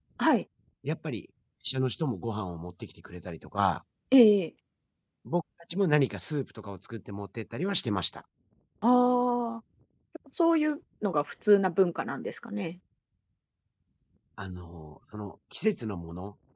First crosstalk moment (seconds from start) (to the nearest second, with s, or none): none